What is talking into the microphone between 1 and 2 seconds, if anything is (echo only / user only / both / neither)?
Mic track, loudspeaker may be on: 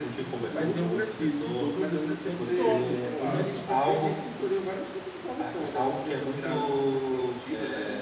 both